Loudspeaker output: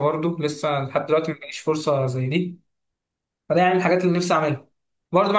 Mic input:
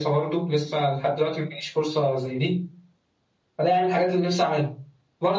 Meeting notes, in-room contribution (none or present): none